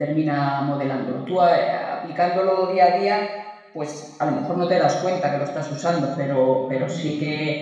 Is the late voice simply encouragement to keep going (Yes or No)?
Yes